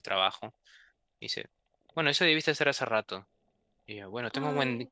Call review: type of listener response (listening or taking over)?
listening